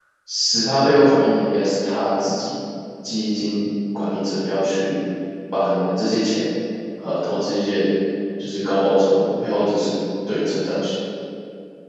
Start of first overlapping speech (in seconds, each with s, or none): none